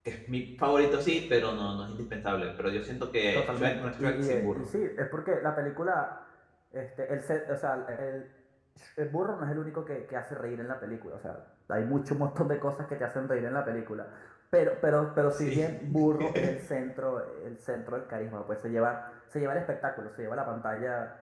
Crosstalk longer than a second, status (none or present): present